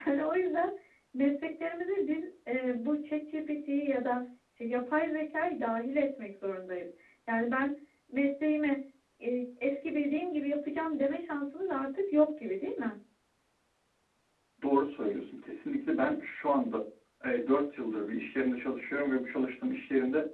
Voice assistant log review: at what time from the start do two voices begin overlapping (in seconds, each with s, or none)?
none